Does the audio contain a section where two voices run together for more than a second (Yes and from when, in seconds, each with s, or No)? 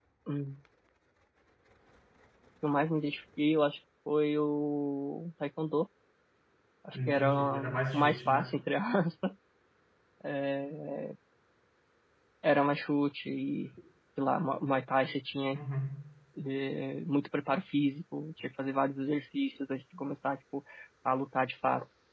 Yes, from 7.0 s